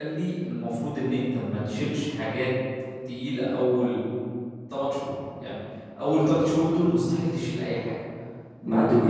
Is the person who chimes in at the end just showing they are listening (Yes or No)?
Yes